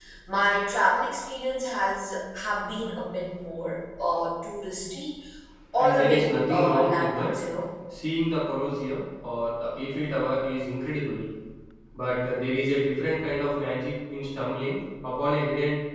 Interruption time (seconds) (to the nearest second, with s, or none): 6 s